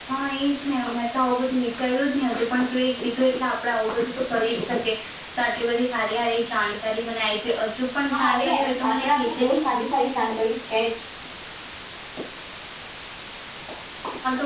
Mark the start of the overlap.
8.1 s

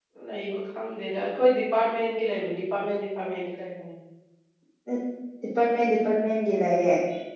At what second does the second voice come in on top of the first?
none

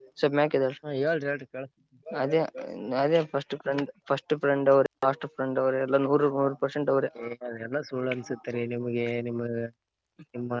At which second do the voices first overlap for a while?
none

